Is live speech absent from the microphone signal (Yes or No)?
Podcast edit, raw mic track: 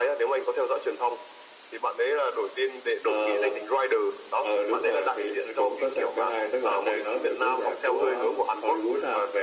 Yes